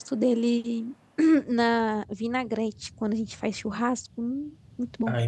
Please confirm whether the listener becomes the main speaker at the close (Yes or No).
Yes